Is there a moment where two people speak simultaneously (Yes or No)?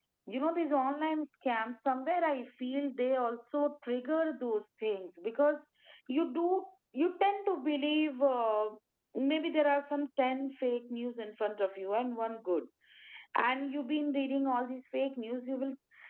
No